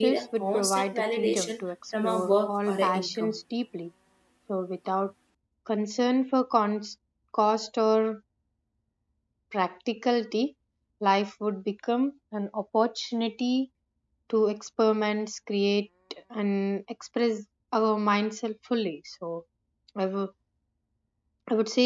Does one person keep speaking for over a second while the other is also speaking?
Yes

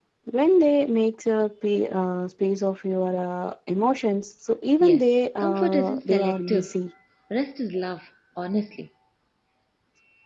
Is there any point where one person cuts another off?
Yes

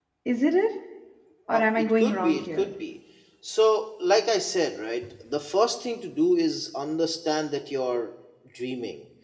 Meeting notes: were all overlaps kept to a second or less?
No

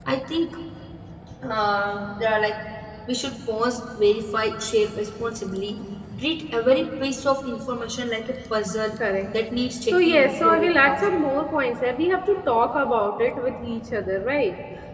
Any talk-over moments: Yes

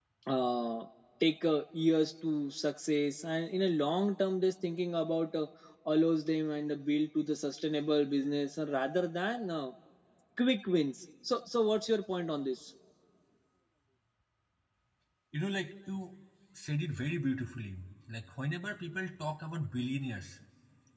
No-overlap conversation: Yes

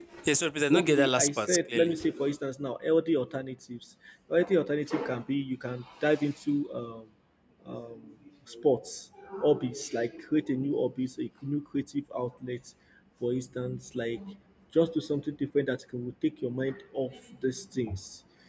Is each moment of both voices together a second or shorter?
No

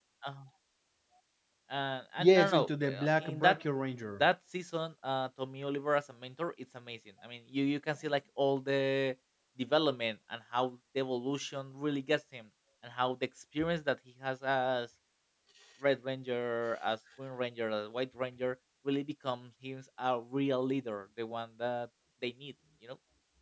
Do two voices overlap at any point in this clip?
Yes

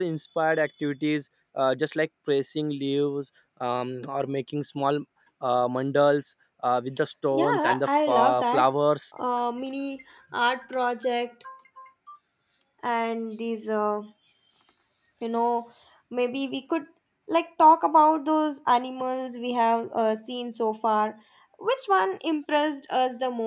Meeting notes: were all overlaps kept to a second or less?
No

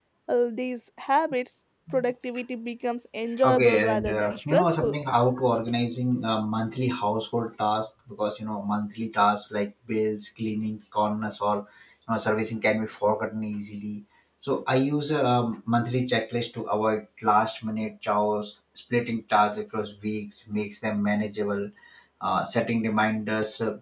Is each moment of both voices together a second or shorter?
No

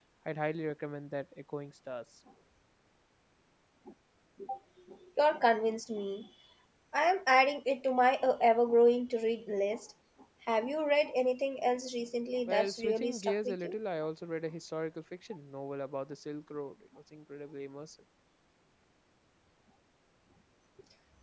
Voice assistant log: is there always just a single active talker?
No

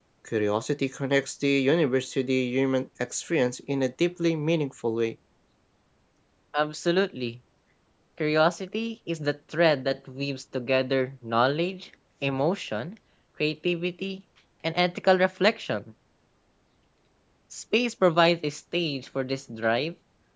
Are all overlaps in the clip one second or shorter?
Yes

